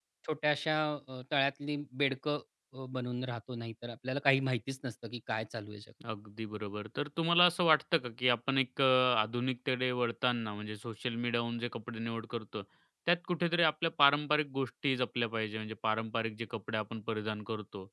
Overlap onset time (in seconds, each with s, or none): none